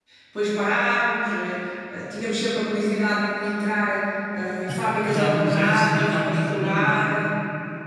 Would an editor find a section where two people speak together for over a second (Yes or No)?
Yes